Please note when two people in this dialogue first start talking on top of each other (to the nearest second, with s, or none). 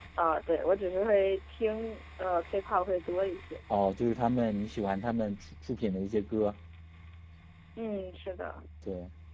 none